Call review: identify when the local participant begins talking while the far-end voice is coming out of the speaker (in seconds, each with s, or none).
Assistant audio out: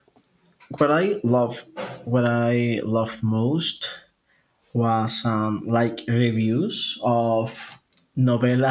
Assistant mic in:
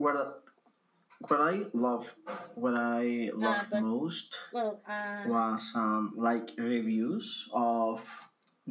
3.4 s